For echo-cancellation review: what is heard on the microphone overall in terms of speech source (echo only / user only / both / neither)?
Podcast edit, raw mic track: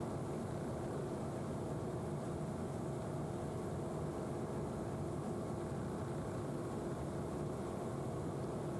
neither